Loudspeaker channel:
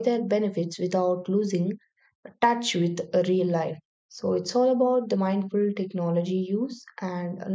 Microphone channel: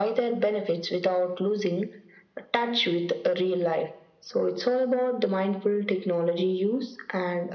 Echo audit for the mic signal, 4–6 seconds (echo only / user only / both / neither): echo only